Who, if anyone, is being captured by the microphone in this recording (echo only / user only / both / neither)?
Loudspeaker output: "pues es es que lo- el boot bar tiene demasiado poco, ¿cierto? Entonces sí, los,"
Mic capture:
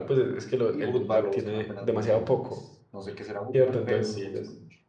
both